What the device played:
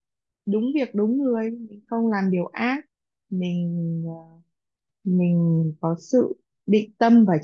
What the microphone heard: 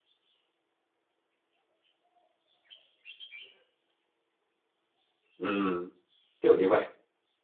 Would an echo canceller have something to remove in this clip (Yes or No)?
No